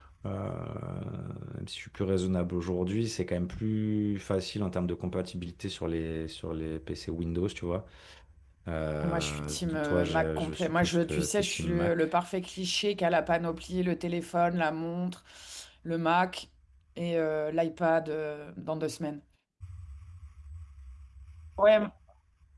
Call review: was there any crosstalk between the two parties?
Yes, from 9.0 s

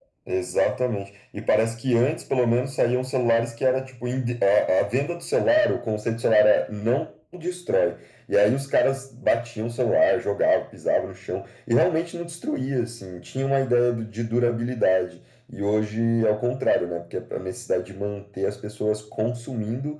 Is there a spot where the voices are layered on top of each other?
No

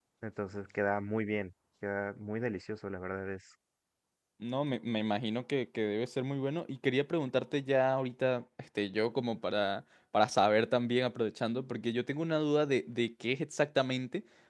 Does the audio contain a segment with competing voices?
No

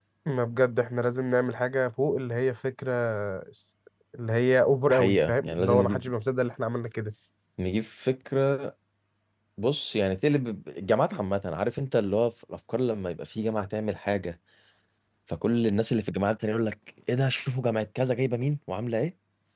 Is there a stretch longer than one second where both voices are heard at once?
Yes, from 4.9 s

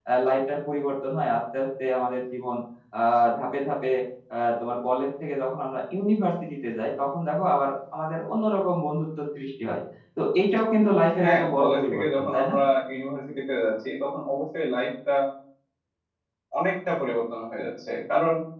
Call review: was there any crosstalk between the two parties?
Yes, from 11.2 s

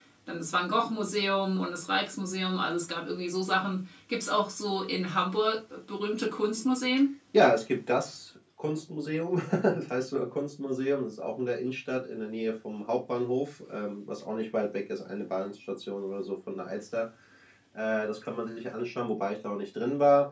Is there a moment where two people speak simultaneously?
No

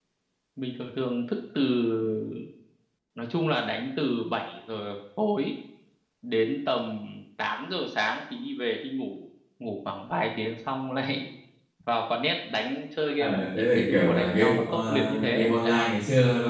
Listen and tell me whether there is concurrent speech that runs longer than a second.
Yes, from 13.2 s

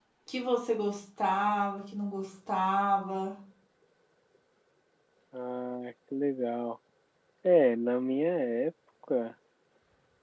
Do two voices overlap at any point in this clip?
No

